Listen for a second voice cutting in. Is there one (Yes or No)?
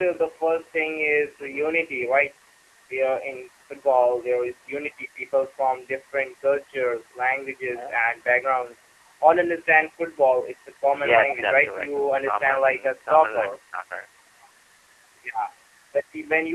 Yes